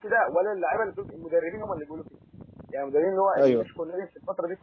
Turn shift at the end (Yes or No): No